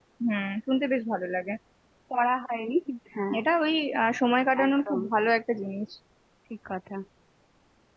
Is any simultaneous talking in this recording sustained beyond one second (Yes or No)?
No